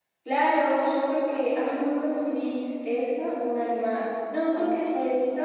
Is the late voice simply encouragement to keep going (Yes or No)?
Yes